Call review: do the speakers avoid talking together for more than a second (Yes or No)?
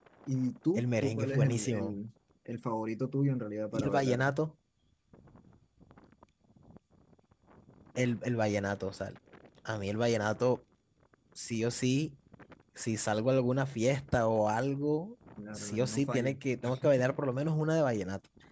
No